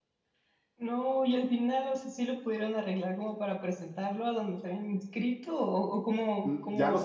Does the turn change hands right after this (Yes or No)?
Yes